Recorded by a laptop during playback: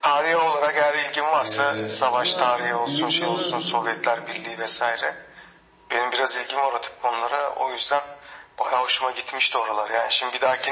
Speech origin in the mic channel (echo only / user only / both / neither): both